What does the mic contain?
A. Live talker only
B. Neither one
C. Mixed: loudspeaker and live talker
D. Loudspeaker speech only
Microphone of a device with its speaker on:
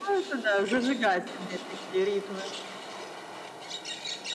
D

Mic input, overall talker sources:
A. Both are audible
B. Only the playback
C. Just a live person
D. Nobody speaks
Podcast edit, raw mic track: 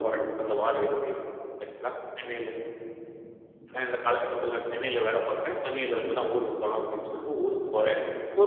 B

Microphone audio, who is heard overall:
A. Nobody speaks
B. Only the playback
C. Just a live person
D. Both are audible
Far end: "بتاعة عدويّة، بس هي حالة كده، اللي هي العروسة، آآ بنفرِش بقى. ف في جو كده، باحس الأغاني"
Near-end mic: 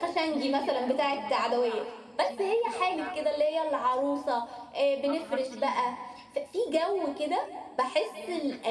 D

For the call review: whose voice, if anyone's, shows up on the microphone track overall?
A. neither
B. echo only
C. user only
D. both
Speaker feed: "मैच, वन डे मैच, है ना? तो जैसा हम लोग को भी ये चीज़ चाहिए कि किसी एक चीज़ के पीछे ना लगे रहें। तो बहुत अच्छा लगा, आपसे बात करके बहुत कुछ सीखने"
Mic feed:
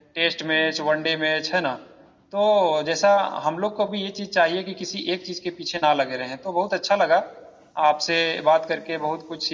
B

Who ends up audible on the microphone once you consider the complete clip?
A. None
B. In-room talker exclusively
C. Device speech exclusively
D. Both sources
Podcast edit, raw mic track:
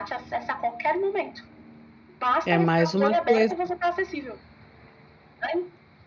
D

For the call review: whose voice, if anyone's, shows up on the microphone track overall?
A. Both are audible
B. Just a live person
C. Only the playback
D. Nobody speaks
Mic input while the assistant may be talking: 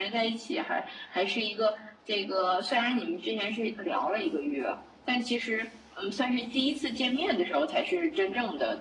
C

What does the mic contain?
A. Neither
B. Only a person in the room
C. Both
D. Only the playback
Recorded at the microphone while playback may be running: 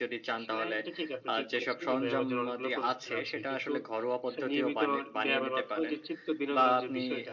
C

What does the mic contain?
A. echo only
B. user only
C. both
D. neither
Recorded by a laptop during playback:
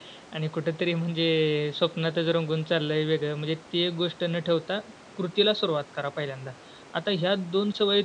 B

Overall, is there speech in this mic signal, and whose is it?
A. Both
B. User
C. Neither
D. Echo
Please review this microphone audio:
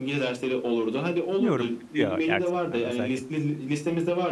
A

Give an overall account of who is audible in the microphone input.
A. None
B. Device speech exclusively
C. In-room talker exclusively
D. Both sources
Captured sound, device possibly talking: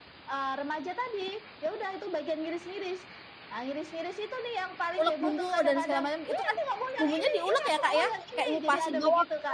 D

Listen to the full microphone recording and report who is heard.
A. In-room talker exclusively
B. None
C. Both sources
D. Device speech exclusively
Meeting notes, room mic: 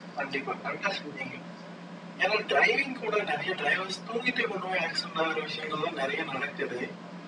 D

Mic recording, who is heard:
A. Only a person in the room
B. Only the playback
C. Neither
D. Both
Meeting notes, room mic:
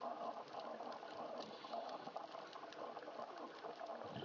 C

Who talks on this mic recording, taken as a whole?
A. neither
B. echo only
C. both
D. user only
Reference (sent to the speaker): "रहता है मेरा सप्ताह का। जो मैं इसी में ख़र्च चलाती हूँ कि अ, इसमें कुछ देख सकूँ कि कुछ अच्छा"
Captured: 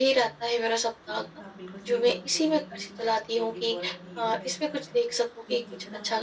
C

